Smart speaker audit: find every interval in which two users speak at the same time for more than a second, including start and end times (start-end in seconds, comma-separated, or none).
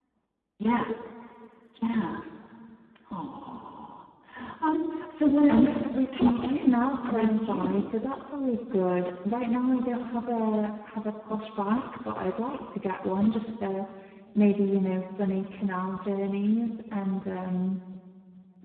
5.5-7.8